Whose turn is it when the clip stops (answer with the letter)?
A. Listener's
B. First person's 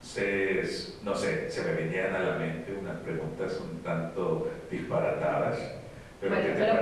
A